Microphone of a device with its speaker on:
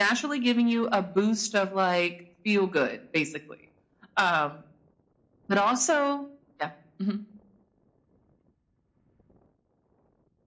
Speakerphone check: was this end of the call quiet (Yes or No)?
Yes